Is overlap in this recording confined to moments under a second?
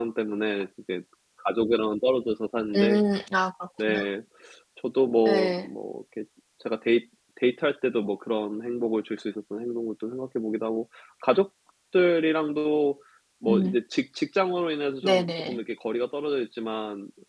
Yes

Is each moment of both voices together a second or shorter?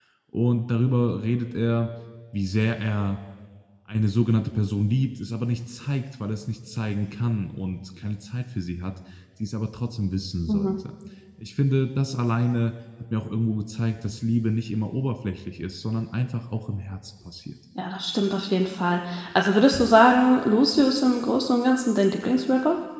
Yes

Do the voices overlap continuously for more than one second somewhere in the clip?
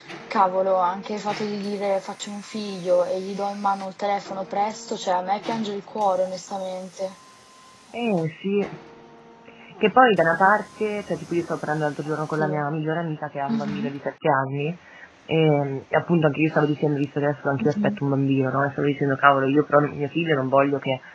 No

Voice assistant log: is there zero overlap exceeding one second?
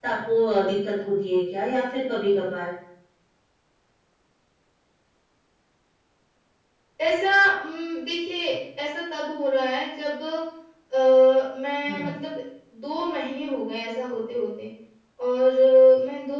Yes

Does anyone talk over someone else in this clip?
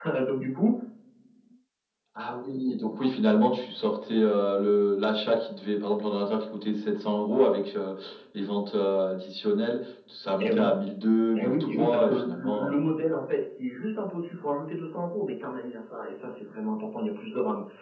Yes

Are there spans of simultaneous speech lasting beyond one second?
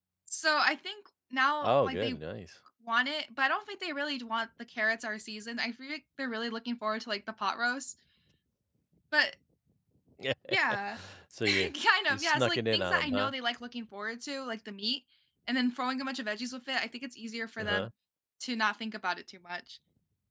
Yes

